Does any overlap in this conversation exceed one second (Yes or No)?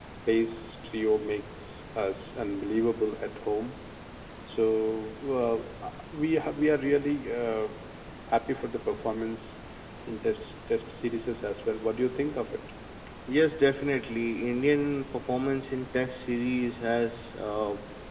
No